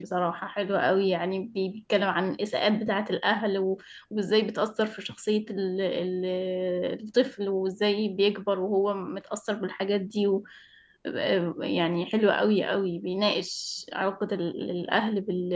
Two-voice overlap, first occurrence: none

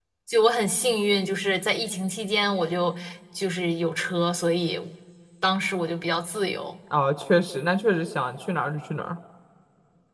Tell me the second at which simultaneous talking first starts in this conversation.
none

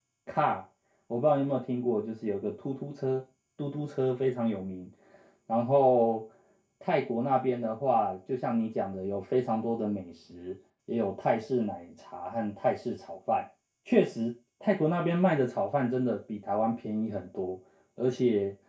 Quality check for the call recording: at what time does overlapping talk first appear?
none

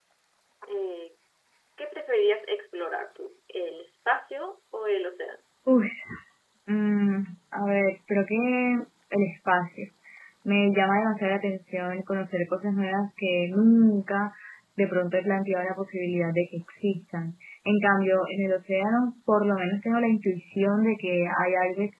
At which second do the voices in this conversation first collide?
none

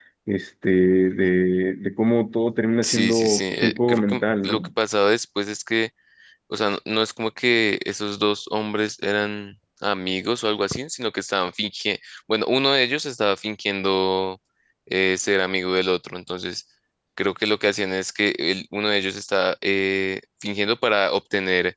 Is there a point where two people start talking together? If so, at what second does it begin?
3 s

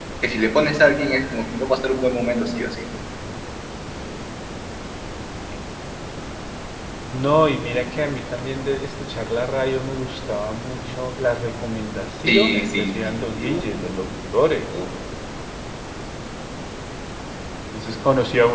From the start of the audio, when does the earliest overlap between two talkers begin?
12 s

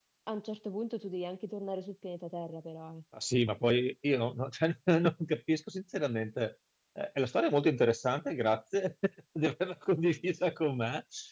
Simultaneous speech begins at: none

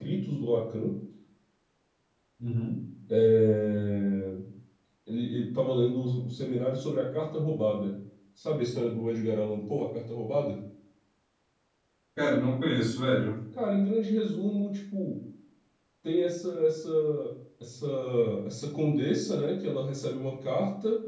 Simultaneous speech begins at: none

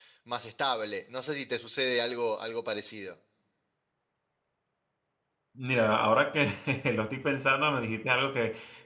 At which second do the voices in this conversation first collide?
none

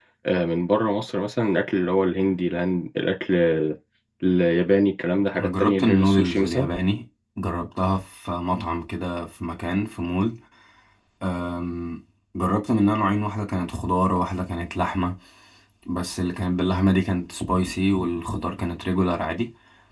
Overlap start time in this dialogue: 5 s

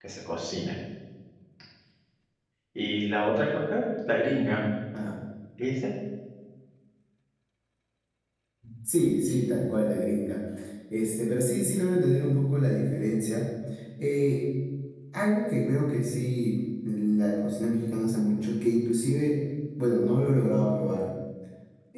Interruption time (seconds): none

